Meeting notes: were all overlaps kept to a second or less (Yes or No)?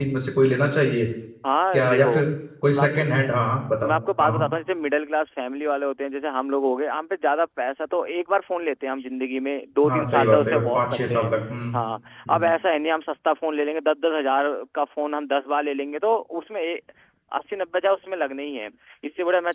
No